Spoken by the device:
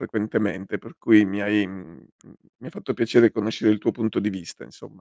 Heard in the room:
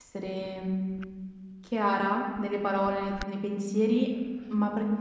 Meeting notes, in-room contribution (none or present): present